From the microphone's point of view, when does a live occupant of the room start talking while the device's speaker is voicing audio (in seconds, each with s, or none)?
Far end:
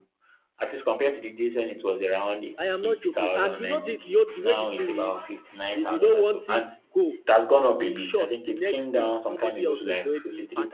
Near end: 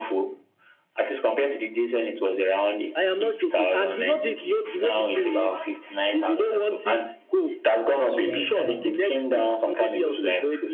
8.0 s